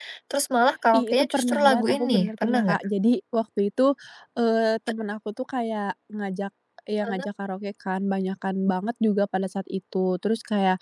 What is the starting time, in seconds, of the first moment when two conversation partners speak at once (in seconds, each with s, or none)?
0.9 s